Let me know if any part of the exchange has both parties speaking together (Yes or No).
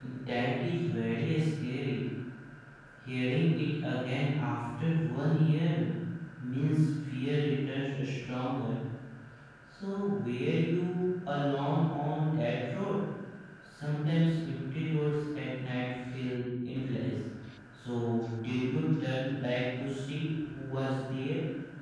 No